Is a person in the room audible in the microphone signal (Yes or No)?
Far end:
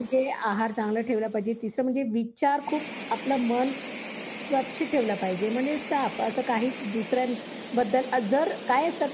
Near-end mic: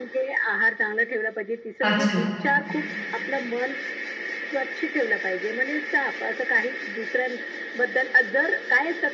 Yes